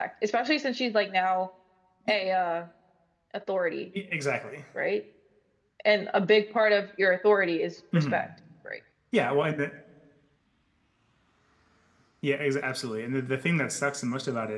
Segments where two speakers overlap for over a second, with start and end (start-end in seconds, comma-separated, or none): none